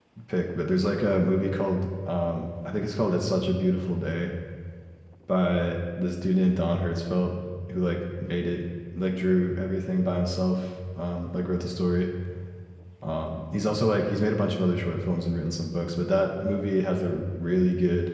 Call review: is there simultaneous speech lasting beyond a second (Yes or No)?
No